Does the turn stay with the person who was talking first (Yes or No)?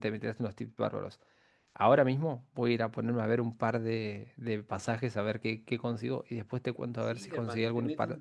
No